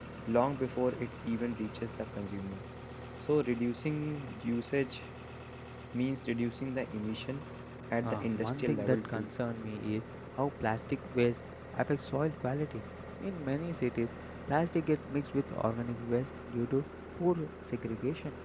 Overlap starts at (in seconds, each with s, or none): 8.0 s